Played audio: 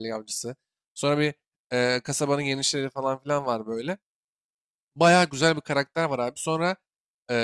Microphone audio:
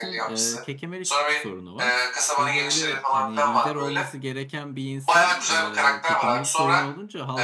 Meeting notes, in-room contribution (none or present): present